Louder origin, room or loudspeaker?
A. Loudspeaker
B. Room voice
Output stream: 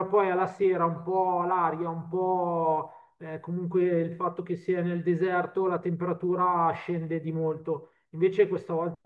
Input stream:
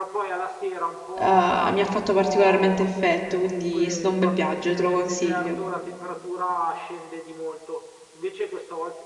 B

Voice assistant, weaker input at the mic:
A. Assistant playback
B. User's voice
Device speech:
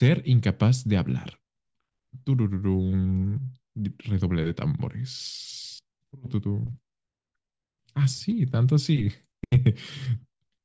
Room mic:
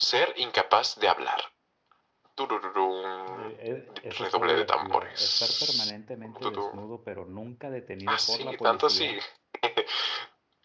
B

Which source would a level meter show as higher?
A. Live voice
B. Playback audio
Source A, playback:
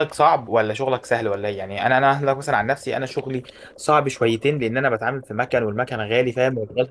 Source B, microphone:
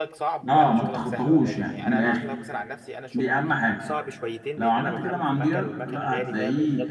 A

